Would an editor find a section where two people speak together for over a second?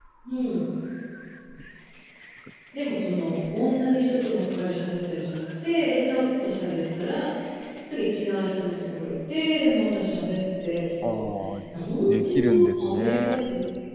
Yes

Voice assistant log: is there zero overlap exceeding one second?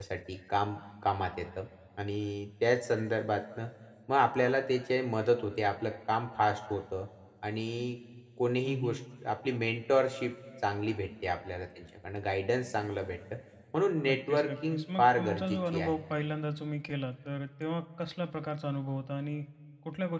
No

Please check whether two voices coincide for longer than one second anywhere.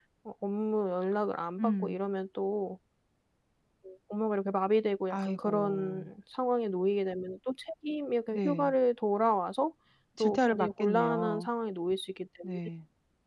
Yes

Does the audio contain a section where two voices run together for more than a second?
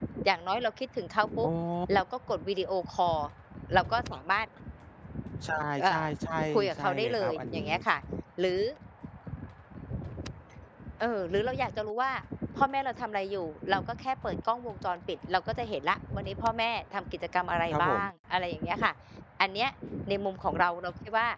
Yes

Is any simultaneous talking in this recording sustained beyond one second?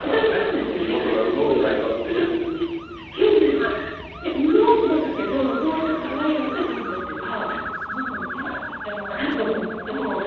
Yes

